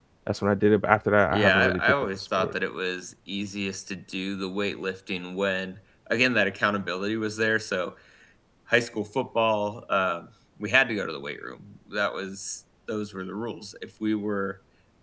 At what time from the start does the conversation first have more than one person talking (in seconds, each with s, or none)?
1.3 s